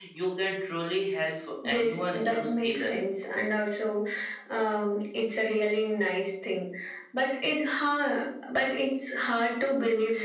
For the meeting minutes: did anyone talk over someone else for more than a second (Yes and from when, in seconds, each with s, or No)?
Yes, from 1.6 s